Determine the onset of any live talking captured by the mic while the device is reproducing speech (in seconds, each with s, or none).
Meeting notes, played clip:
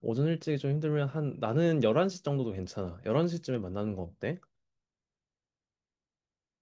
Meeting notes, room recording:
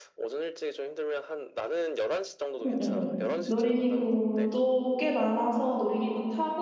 2.6 s